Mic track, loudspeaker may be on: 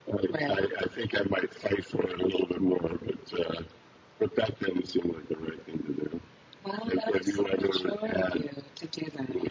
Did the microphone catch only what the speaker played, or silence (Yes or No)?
Yes